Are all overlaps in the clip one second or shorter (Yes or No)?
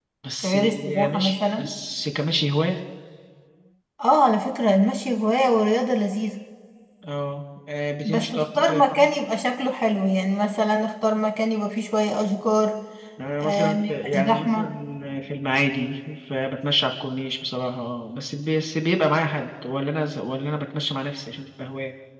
No